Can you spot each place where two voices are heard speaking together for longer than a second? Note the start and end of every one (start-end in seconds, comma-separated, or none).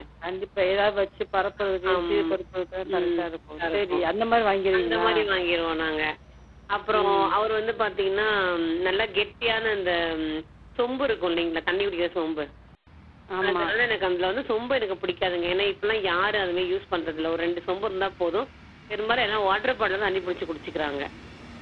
none